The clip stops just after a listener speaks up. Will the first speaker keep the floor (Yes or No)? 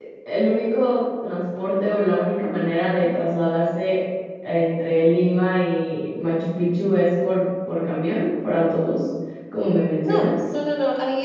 No